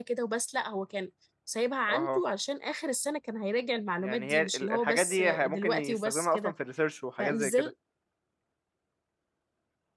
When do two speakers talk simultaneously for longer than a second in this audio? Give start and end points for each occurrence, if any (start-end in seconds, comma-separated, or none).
4.0-6.5